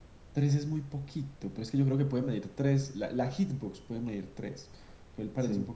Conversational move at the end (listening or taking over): listening